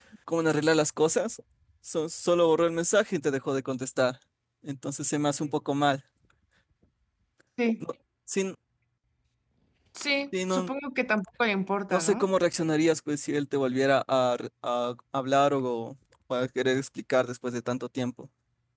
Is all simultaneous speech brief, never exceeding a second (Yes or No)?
Yes